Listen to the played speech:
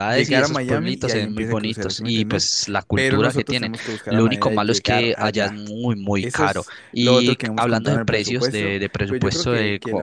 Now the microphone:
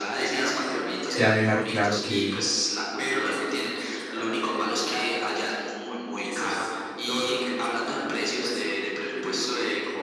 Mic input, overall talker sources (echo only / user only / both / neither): both